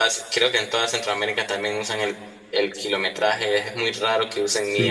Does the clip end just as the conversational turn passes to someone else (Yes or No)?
Yes